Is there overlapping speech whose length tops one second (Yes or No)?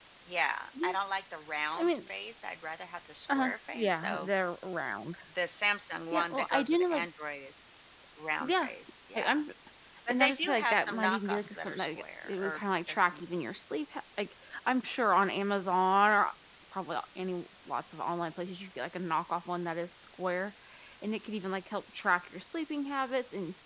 Yes